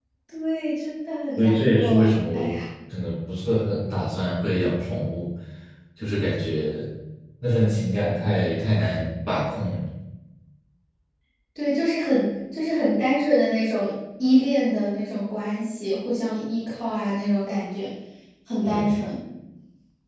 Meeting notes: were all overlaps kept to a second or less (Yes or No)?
No